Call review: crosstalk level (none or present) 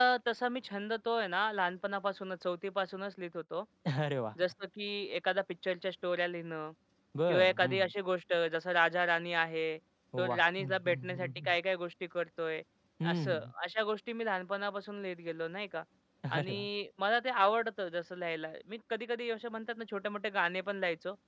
present